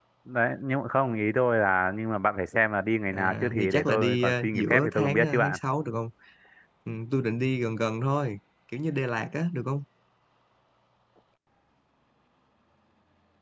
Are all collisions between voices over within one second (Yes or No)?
No